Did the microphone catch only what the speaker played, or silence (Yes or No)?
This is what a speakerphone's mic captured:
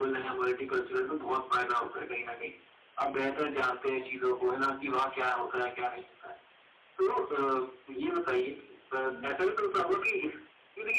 No